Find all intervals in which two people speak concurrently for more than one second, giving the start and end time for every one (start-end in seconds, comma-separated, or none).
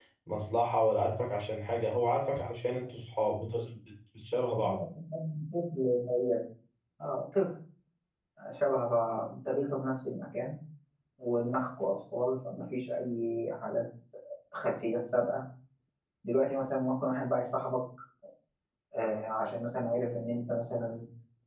none